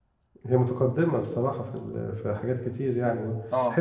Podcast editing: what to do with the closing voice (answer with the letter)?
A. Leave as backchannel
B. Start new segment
A